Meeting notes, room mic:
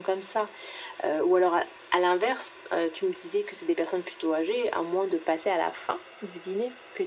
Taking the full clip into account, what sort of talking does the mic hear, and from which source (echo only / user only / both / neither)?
echo only